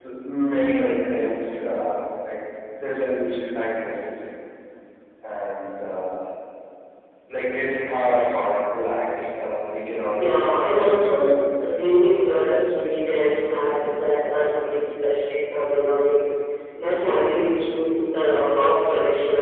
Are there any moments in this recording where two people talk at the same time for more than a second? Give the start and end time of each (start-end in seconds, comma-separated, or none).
10.2-11.5